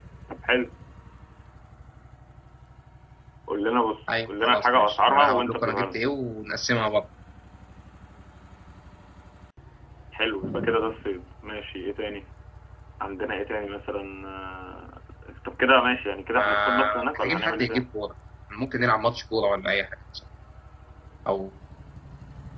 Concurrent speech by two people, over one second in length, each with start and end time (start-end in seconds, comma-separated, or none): 4.1-6.0, 16.4-17.8